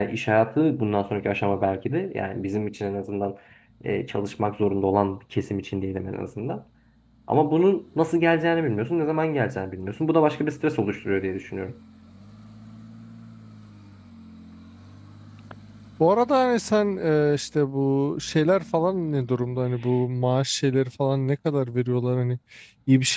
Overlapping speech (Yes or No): No